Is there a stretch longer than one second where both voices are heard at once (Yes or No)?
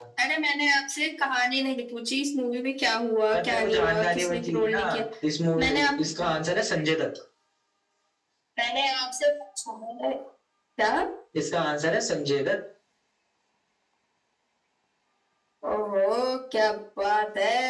Yes